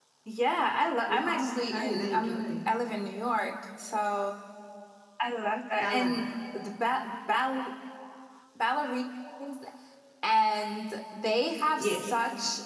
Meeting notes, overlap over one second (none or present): present